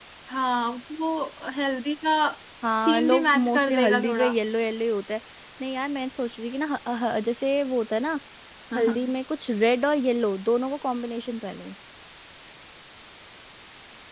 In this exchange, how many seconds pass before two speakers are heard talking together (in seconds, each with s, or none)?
2.9 s